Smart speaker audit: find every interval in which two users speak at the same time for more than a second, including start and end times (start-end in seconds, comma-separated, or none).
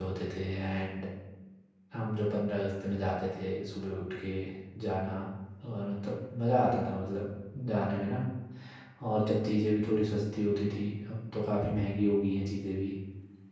none